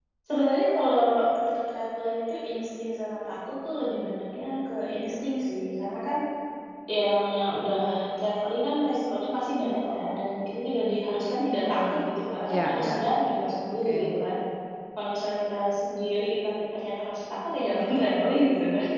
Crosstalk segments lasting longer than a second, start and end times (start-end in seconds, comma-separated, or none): 11.7-13.0